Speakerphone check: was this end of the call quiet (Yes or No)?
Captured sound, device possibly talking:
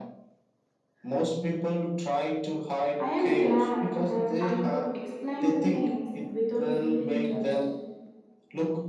No